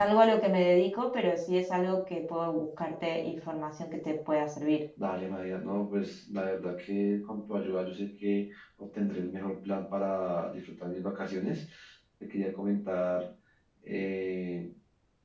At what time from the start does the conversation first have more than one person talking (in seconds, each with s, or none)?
none